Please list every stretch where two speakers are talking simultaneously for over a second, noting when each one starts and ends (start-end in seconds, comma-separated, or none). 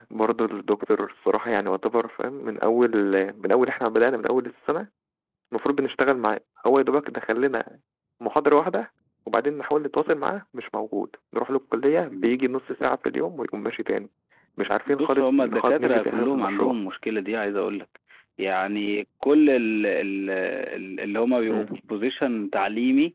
14.9-16.7